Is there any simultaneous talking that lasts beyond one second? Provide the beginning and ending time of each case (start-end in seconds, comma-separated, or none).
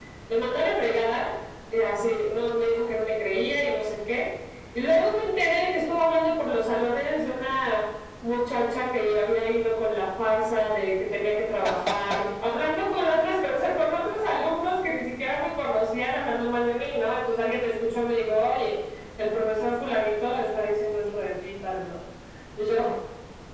none